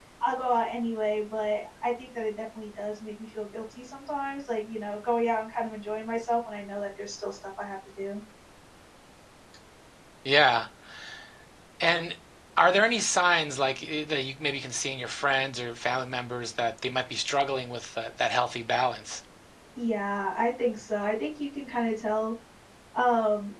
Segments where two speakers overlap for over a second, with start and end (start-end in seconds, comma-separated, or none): none